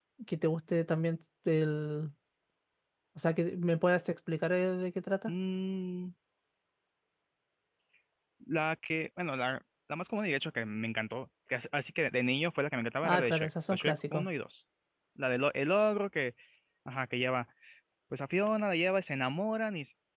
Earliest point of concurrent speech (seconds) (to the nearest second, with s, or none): 13 s